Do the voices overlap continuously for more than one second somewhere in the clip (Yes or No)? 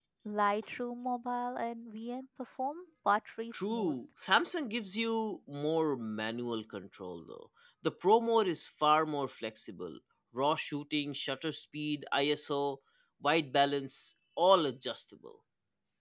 No